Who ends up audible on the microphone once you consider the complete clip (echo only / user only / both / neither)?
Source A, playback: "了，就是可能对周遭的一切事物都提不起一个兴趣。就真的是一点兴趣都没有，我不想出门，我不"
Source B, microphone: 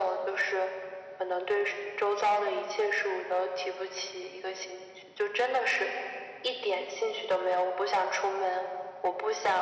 echo only